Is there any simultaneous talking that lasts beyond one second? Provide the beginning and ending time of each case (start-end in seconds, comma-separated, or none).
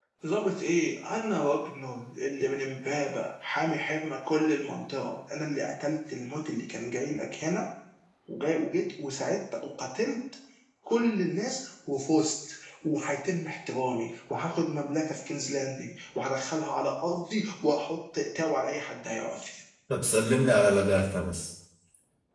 none